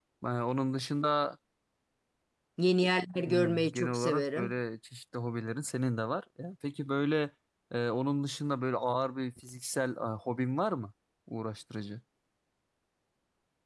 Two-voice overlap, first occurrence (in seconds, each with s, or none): 3.3 s